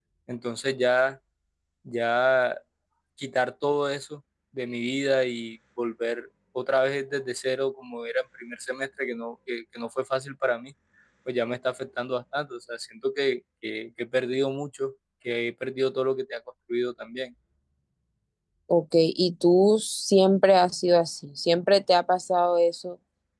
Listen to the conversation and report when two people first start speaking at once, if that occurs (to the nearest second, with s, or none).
none